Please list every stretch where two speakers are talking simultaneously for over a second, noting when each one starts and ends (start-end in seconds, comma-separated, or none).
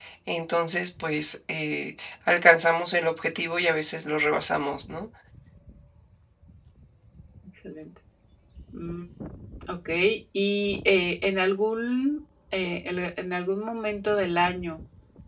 none